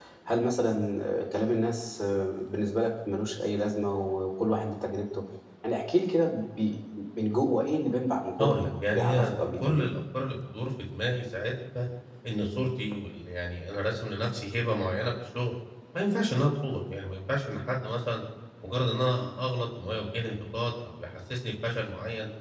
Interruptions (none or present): present